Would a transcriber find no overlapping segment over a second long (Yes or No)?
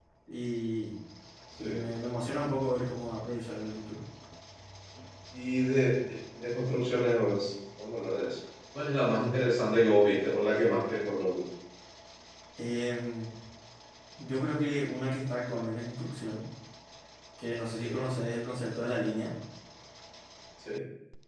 Yes